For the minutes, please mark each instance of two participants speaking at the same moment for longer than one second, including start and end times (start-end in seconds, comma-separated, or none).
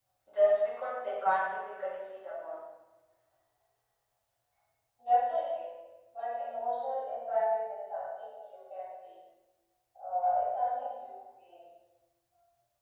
none